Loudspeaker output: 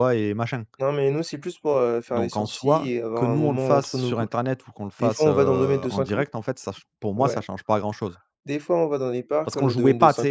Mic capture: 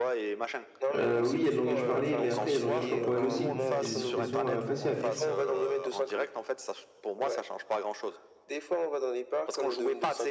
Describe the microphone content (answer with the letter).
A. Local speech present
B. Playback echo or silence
A